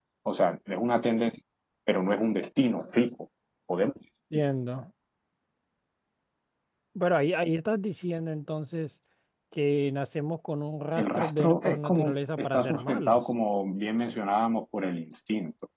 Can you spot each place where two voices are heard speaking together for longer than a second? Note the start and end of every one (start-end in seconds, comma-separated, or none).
11.0-13.2